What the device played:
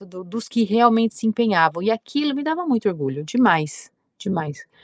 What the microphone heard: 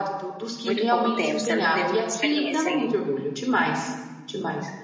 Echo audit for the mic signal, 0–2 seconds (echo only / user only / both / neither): both